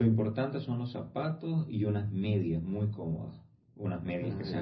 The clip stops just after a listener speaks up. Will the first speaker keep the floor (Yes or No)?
Yes